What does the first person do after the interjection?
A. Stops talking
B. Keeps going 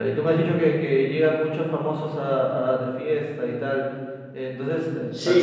A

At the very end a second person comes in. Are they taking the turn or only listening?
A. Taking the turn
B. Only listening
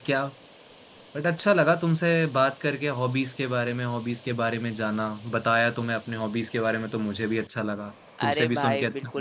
A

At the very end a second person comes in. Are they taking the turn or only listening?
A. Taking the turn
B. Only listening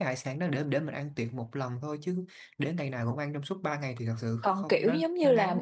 A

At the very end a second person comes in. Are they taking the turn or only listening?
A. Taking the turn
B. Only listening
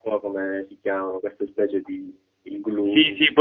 A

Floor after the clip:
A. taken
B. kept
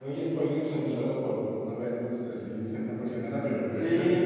A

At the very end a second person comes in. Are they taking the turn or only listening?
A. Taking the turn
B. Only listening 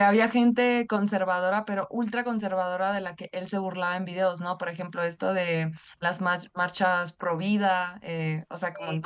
B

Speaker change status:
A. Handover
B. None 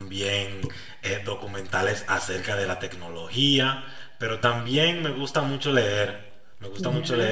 B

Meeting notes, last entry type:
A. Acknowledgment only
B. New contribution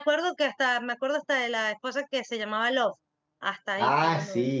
B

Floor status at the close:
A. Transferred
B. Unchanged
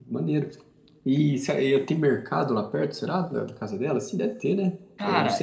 A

